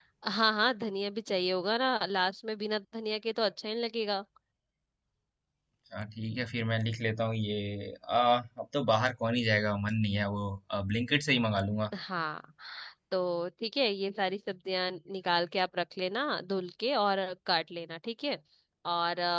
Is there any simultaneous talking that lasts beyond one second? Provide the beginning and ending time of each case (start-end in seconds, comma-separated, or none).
none